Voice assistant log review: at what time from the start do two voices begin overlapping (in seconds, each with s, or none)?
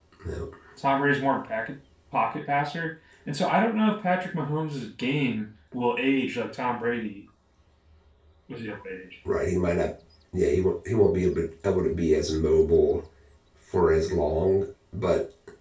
none